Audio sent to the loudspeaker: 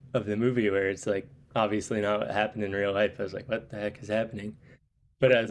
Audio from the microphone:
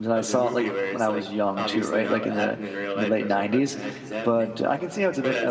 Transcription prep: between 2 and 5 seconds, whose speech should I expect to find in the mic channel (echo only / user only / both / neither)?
both